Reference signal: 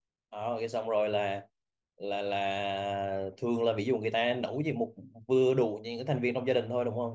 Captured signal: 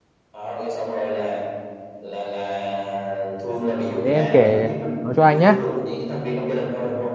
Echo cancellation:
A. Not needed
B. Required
B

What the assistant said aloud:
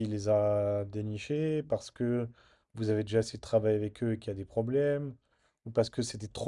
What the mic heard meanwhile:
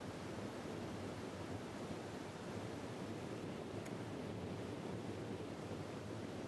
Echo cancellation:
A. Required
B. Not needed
B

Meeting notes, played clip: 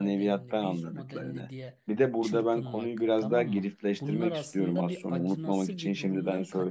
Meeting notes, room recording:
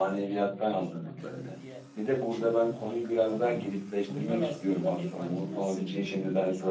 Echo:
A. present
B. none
A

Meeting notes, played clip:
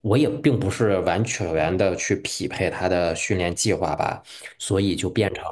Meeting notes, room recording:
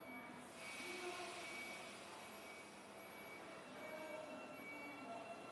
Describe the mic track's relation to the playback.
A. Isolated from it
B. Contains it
A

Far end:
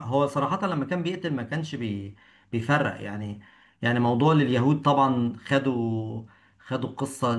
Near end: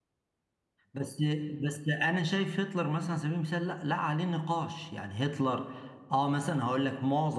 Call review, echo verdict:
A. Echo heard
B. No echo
B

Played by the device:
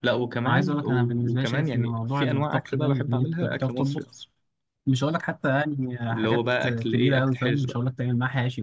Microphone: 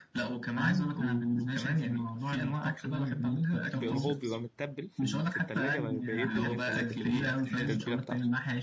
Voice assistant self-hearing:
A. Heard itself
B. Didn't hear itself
A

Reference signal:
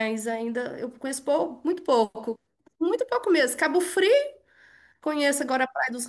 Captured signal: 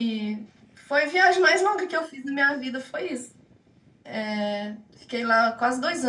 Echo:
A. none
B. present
A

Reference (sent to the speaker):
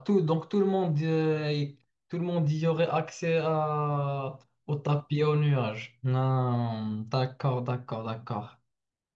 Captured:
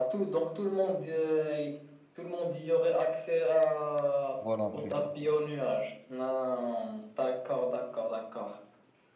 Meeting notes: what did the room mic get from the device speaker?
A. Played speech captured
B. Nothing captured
A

